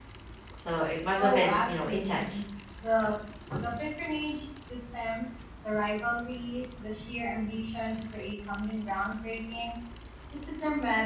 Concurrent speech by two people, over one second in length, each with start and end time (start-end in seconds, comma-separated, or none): 1.2-2.4